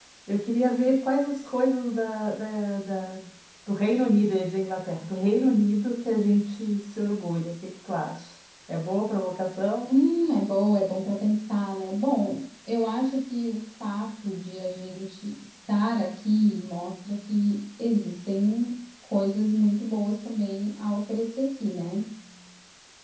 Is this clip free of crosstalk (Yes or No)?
Yes